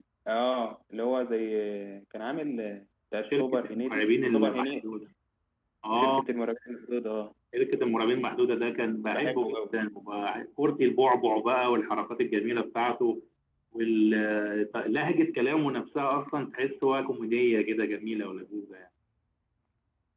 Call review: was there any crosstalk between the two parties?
Yes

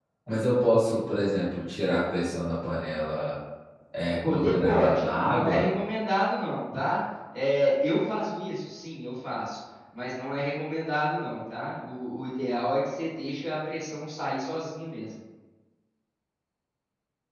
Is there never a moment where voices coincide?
No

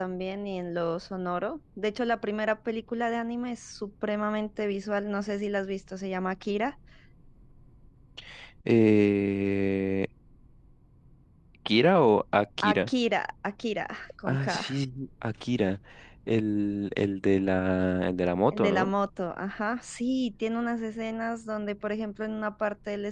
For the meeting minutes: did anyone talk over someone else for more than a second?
No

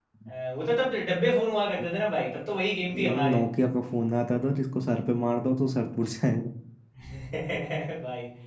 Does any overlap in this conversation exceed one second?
No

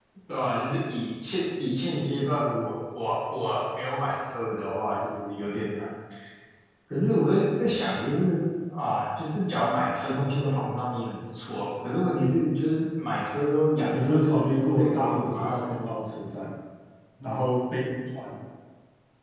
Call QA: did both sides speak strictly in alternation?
No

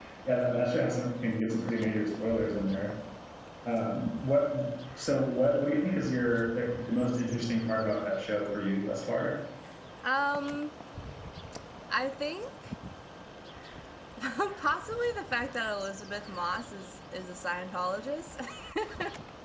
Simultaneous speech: No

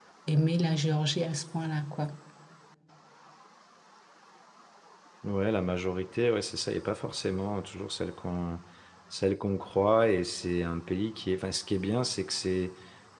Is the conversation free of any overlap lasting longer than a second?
Yes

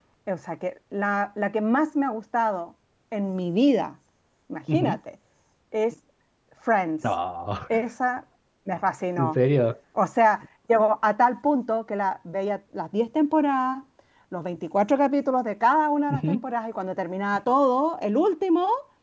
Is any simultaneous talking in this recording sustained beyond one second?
No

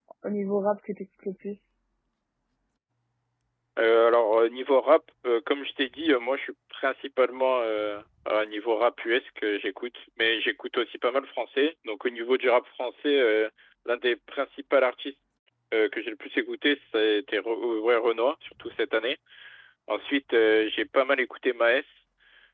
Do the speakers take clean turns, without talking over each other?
Yes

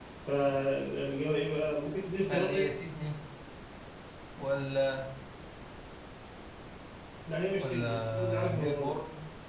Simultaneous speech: Yes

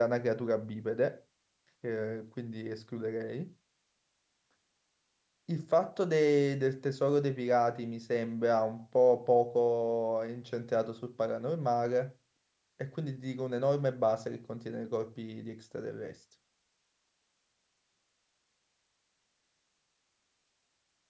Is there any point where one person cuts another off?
No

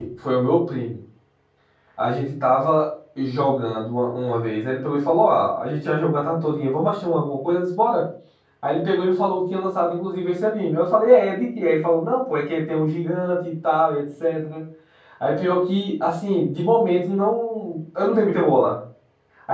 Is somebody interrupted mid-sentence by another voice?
No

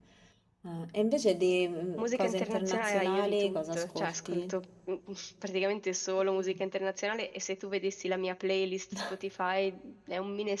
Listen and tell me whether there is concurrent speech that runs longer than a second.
Yes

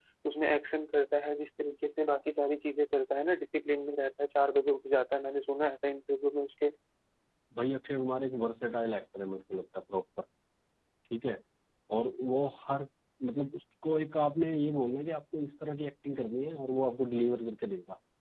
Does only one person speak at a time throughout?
Yes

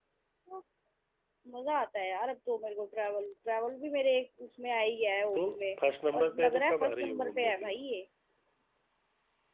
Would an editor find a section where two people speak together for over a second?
Yes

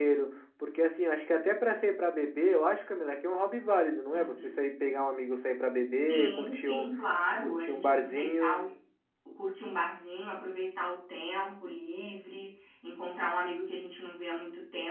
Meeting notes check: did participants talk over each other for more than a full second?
Yes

